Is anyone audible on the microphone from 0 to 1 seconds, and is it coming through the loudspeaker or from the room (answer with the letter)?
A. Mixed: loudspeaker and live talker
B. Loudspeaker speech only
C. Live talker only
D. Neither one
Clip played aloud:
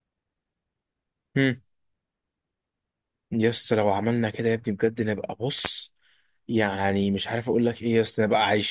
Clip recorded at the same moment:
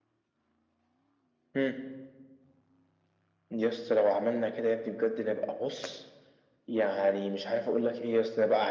D